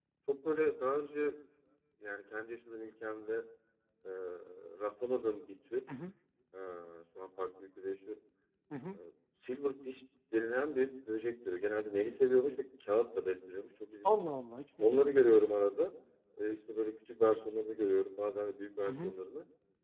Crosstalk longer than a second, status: none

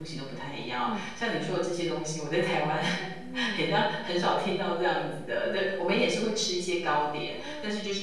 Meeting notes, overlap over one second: none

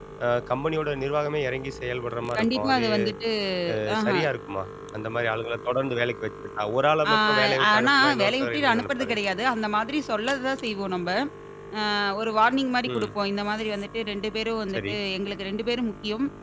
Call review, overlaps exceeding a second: present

